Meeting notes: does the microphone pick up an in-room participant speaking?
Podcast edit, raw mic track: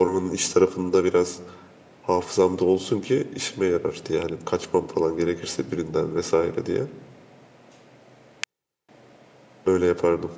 Yes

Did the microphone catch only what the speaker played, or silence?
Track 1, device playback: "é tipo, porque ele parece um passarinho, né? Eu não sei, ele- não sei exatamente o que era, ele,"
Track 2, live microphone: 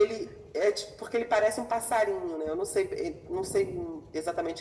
Yes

